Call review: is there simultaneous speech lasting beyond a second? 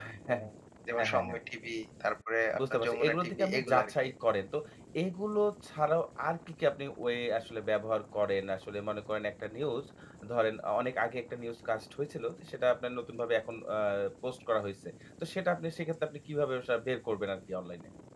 Yes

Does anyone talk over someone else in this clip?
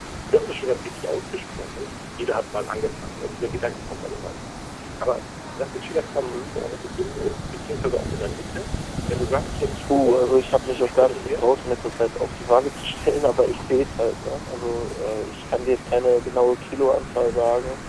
Yes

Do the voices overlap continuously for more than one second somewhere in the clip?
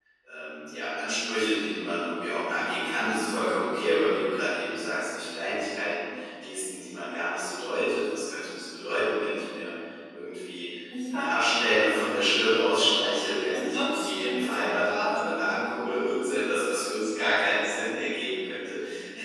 Yes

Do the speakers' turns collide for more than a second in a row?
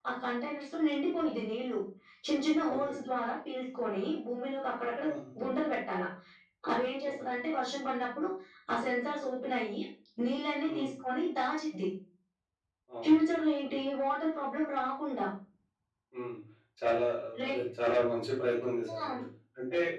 No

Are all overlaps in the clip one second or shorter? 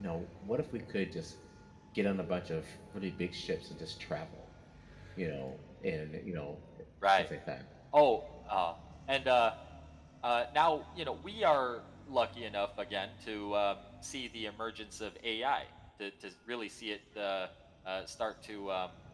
Yes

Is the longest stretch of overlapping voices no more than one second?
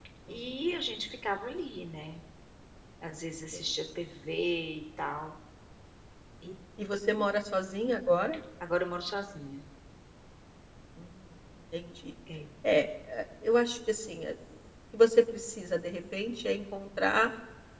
Yes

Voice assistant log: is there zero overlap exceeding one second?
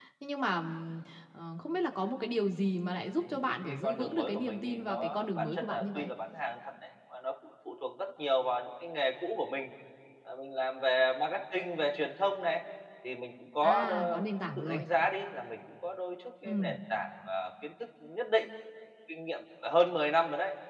No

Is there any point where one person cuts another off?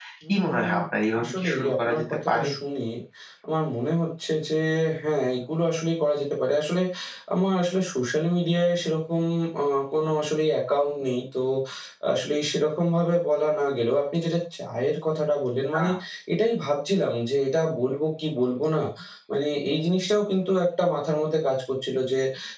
Yes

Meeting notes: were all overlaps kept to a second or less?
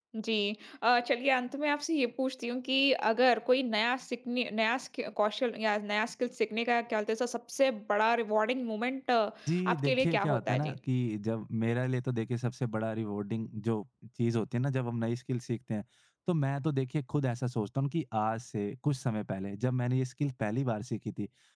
No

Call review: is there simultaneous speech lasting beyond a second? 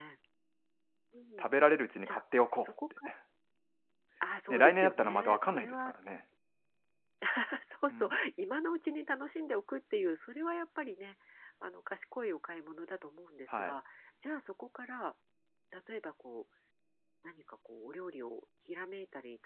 Yes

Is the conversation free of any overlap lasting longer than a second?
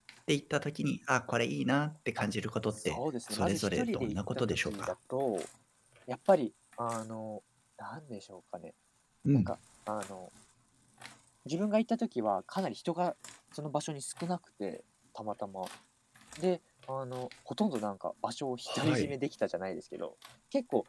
No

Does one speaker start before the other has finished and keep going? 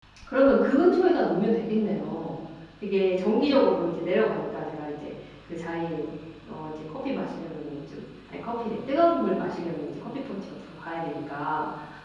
No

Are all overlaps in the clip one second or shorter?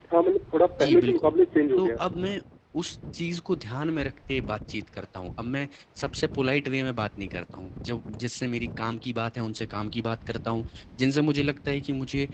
Yes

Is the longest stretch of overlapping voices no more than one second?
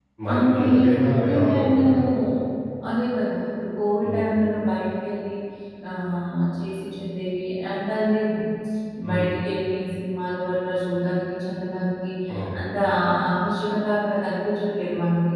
No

